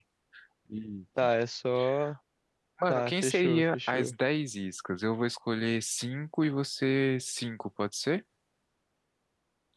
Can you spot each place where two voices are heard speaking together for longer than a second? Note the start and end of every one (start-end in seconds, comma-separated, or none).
2.9-4.2